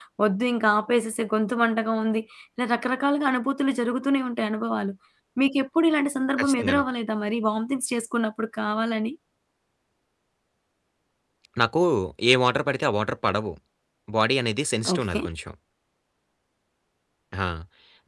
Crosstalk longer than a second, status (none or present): none